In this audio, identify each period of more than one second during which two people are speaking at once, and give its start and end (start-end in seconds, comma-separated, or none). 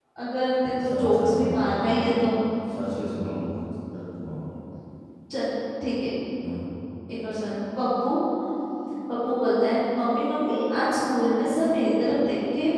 0.8-2.1